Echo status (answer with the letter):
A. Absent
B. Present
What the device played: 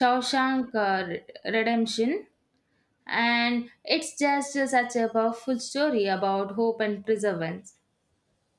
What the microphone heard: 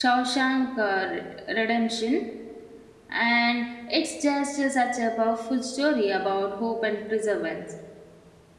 B